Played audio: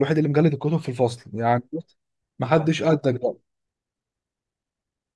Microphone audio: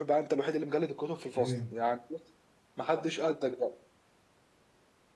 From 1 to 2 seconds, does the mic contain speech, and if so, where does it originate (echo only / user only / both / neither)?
both